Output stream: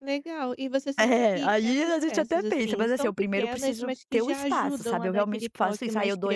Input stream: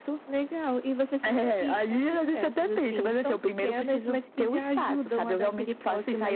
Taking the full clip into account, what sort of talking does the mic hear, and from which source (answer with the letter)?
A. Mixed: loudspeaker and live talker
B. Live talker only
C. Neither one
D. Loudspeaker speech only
D